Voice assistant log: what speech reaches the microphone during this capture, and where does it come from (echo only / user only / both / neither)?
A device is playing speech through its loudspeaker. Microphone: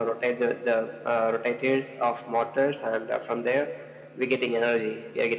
echo only